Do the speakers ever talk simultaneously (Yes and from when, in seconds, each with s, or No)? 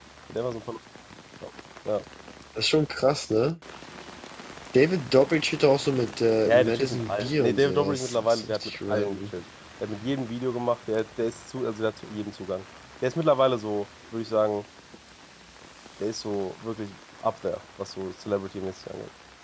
Yes, from 6.4 s